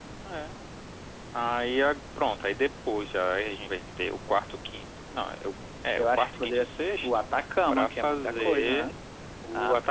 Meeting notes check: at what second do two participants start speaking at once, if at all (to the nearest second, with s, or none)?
6 s